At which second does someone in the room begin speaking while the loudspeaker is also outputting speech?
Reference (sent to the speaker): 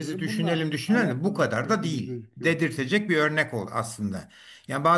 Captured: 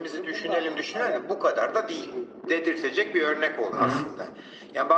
3.7 s

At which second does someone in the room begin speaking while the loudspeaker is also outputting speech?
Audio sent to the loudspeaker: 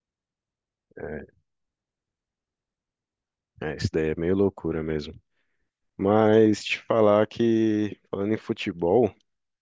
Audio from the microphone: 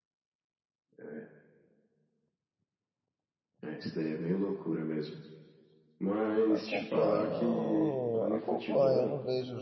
6.5 s

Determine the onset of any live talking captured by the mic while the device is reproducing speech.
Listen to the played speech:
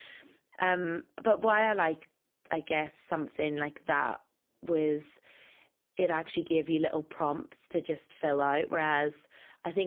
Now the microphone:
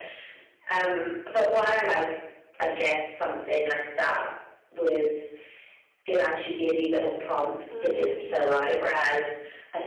7.7 s

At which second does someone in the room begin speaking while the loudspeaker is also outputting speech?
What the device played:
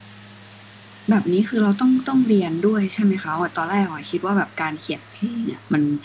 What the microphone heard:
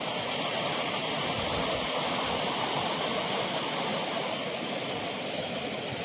none

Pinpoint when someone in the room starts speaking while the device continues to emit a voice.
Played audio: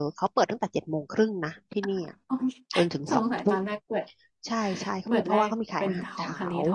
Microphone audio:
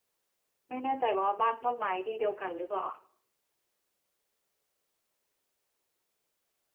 0.7 s

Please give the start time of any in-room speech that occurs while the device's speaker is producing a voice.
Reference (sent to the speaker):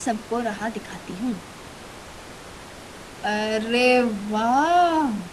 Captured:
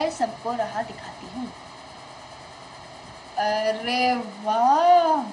none

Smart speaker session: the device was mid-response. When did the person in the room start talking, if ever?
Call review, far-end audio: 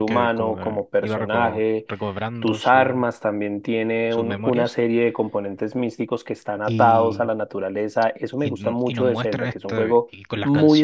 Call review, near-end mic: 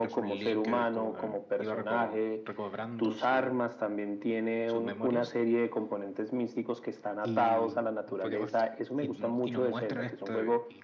8.1 s

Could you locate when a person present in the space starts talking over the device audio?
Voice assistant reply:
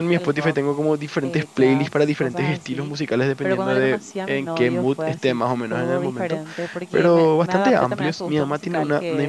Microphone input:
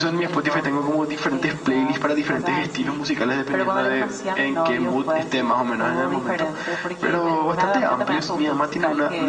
none

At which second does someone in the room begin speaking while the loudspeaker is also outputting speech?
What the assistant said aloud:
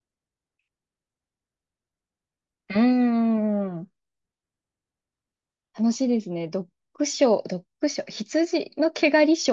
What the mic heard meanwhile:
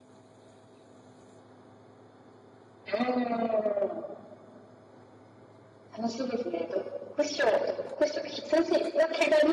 none

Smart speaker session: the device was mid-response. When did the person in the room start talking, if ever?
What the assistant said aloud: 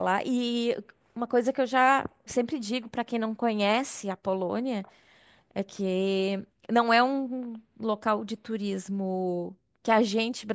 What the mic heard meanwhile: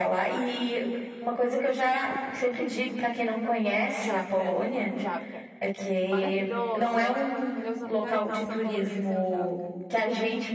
4.0 s

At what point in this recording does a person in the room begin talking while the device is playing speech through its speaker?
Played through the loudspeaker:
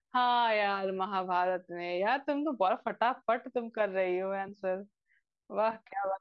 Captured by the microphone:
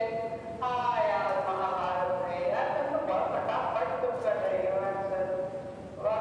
none

